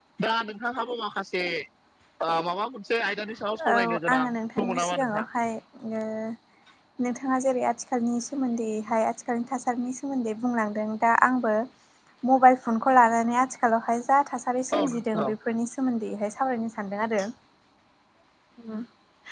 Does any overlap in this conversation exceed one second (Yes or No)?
Yes